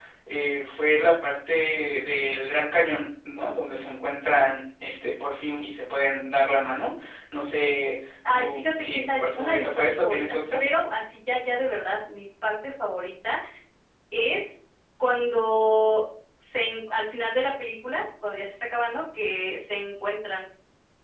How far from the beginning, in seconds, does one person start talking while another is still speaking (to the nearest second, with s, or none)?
8 s